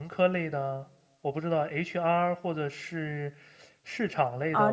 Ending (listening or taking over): taking over